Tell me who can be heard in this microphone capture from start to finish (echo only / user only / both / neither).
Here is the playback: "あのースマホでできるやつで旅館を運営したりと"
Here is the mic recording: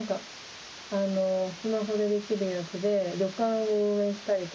echo only